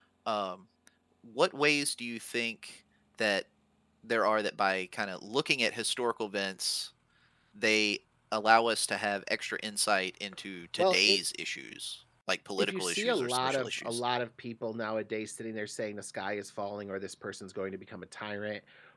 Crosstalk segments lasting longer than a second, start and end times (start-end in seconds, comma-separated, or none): 12.6-14.0